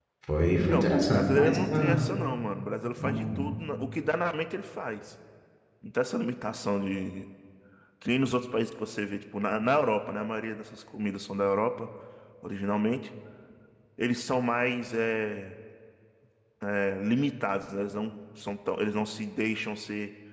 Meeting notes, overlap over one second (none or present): present